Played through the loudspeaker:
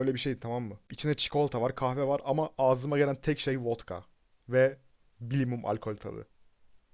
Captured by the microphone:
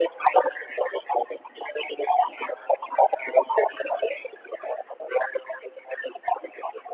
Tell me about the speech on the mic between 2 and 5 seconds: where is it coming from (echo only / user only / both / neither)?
echo only